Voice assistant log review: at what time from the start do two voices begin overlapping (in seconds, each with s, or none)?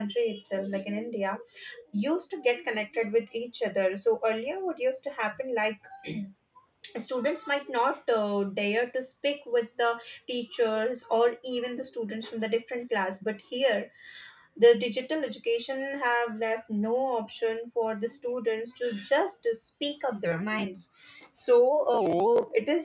none